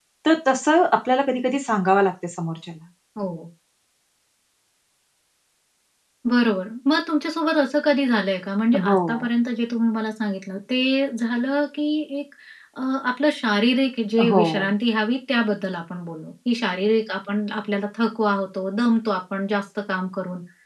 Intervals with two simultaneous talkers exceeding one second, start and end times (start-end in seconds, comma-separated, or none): none